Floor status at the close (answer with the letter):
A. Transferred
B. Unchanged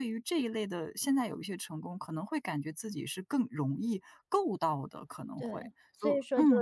A